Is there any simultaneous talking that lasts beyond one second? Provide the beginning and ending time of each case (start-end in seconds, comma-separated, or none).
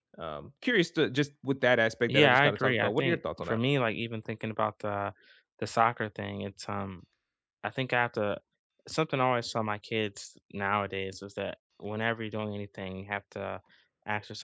2.1-3.6